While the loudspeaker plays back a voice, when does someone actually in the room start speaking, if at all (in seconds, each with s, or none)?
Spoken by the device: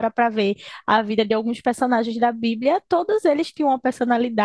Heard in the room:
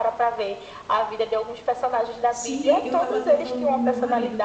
2.3 s